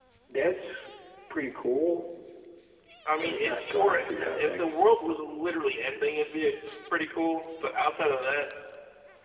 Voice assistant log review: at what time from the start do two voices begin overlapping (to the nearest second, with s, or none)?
3 s